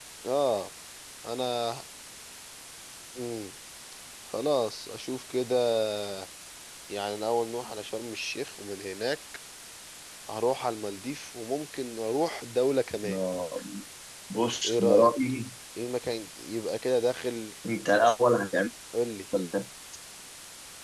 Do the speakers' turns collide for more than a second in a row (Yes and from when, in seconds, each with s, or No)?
No